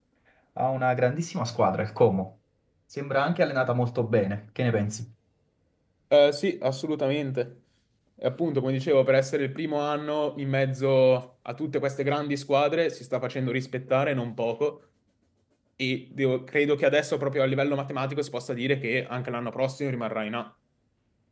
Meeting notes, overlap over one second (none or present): none